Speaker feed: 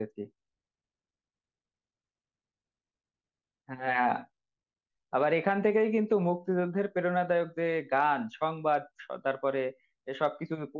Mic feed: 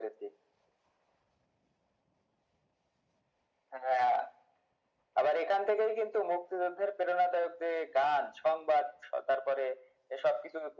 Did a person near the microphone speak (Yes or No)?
No